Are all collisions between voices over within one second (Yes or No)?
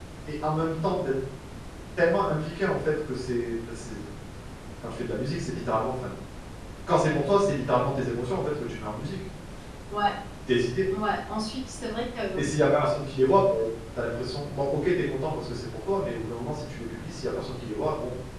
Yes